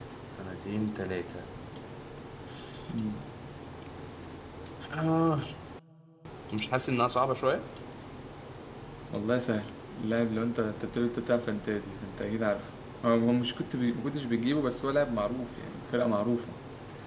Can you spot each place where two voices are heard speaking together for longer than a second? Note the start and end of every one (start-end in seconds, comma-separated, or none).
none